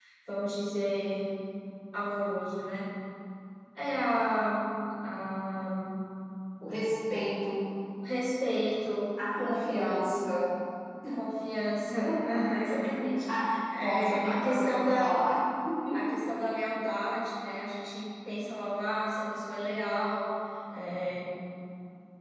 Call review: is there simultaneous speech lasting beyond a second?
Yes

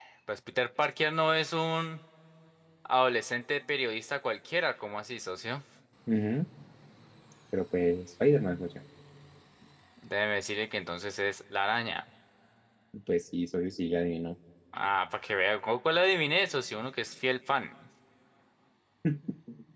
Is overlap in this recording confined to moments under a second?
Yes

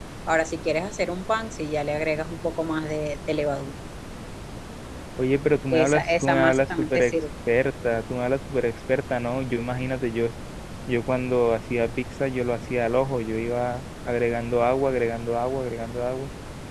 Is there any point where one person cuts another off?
Yes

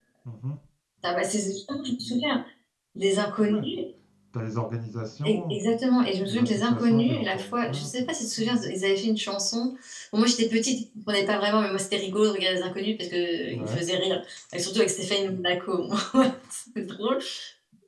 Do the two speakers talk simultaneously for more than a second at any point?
Yes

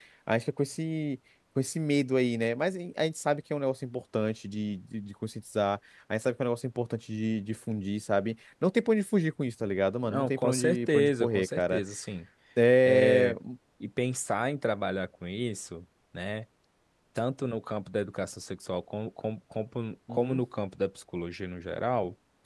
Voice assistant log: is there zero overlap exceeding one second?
No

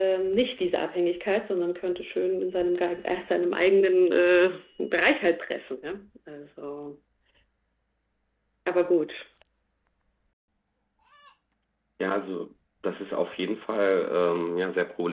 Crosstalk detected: No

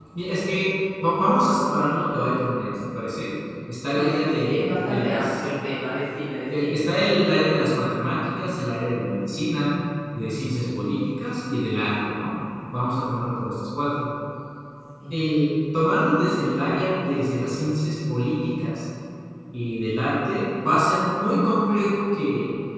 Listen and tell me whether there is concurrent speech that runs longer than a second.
Yes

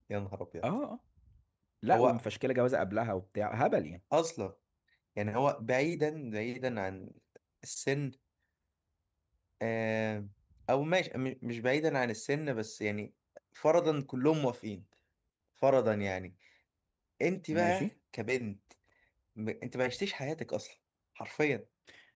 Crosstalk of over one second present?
No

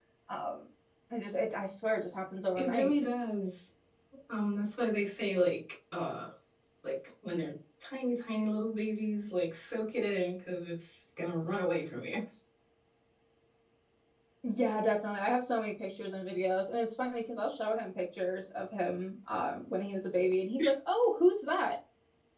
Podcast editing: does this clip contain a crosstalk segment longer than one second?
No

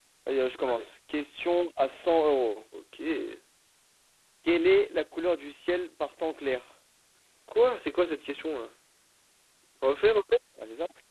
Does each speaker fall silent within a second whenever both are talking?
Yes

